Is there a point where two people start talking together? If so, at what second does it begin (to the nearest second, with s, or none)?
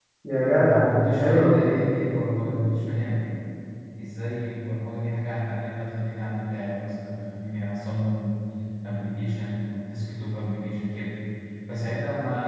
1 s